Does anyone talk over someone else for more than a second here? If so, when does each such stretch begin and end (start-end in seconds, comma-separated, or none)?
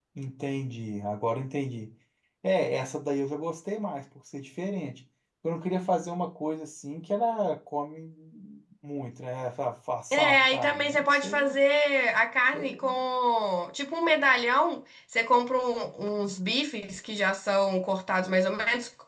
10.1-11.6